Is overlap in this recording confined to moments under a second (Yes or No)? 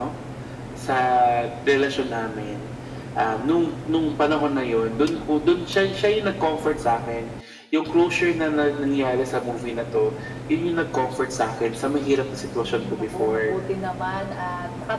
No